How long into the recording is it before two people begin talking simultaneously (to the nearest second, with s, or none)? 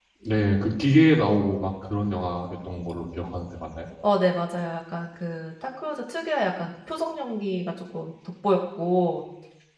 none